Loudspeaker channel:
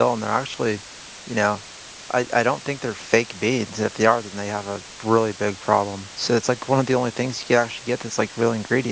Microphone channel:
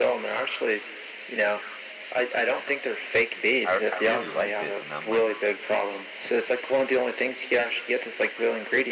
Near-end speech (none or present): present